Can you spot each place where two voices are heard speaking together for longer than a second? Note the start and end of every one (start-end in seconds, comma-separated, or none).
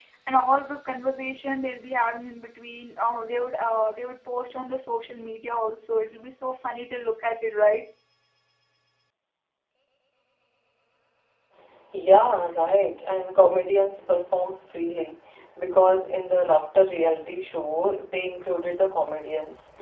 none